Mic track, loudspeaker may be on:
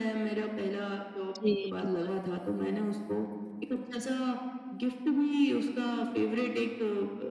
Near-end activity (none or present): present